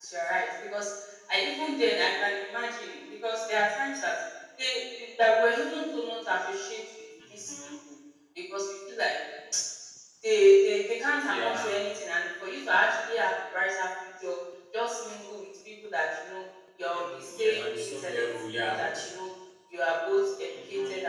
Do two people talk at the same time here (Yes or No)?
Yes